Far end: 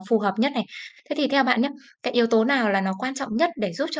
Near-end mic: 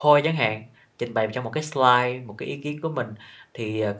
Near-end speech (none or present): present